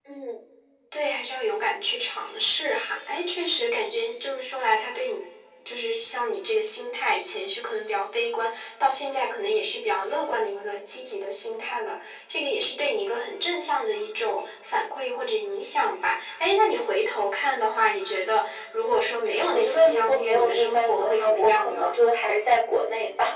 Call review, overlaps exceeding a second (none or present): present